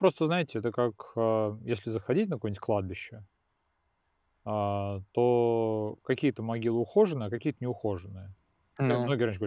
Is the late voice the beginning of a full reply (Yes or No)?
No